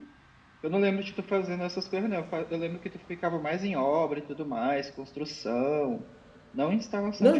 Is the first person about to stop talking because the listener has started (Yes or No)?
Yes